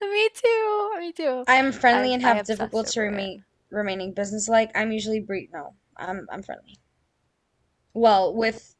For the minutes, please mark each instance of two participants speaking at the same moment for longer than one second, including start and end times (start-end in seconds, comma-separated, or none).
1.9-3.3